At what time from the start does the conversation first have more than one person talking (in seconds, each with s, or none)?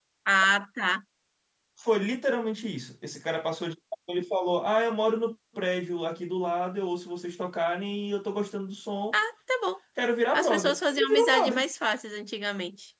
10.3 s